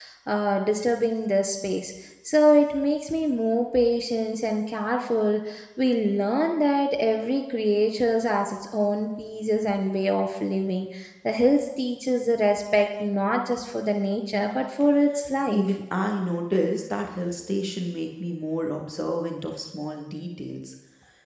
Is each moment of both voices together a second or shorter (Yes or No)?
Yes